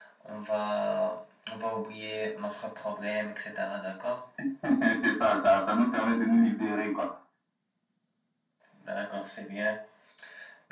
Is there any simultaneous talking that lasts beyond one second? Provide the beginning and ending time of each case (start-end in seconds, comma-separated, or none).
none